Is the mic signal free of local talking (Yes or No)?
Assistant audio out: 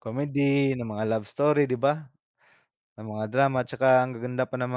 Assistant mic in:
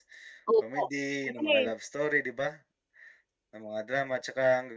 No